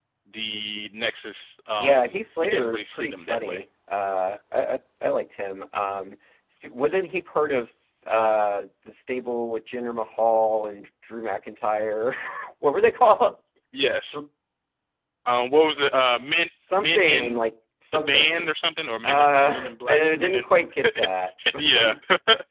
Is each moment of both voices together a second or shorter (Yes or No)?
No